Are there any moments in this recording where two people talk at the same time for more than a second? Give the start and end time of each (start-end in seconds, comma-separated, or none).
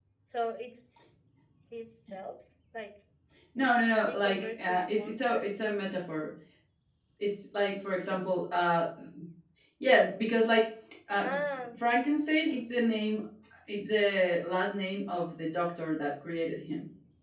4.1-5.4